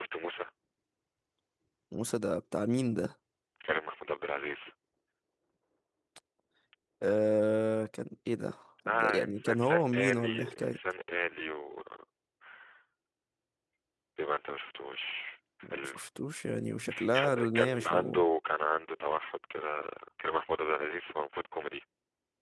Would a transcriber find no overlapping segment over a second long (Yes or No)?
No